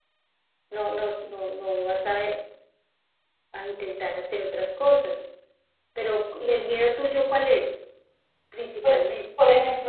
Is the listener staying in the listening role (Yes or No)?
No